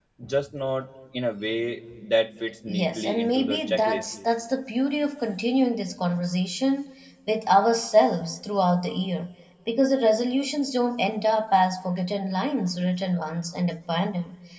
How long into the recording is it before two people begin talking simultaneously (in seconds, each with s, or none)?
2.7 s